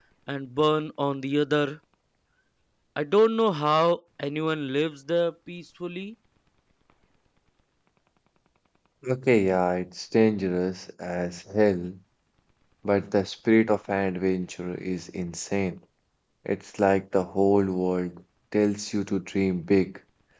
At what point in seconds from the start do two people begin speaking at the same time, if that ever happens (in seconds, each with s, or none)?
none